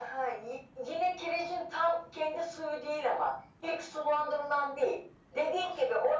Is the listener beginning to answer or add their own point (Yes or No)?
No